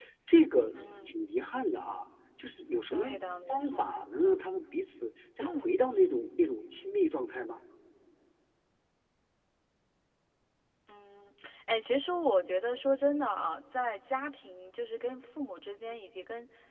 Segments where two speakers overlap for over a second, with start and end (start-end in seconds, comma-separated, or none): none